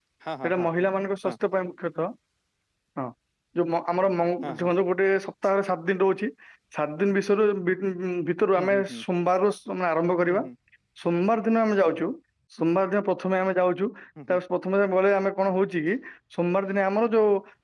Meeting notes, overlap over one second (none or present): none